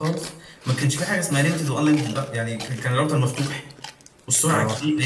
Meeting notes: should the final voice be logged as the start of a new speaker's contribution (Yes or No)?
No